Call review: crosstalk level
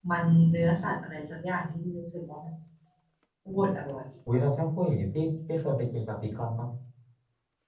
none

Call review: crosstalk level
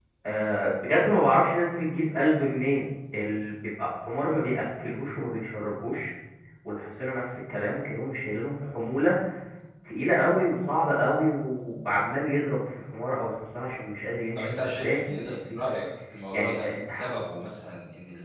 present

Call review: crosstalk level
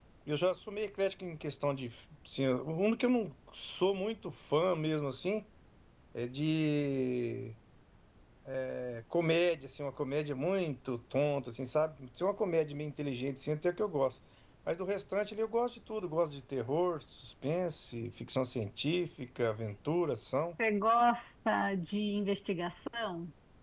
none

